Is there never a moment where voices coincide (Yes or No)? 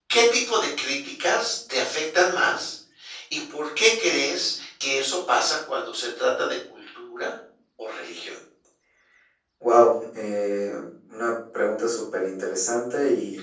Yes